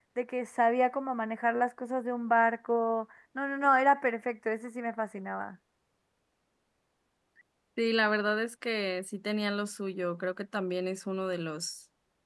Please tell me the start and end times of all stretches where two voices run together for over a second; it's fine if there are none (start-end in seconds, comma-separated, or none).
none